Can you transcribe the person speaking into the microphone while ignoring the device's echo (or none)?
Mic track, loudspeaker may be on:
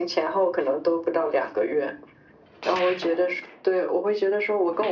none